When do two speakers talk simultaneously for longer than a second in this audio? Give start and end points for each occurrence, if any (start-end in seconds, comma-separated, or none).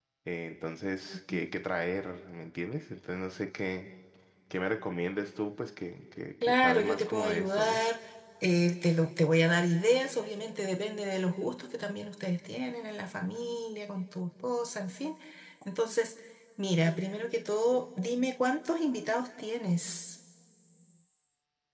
6.4-7.8